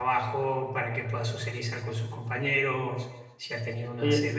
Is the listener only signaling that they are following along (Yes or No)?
No